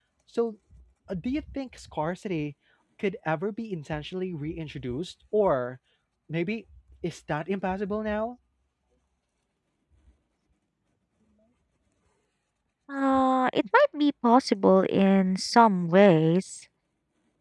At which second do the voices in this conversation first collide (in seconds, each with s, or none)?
none